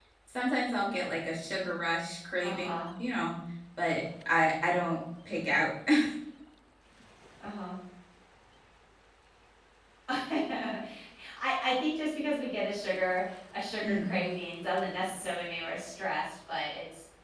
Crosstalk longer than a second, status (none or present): none